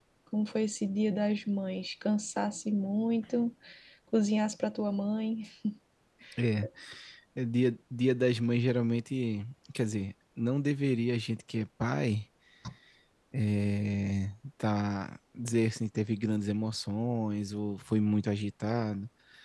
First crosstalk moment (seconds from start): none

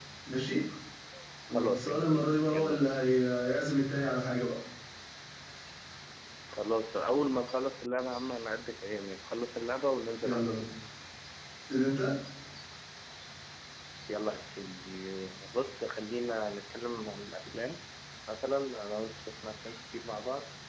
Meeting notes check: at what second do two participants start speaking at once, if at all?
1.5 s

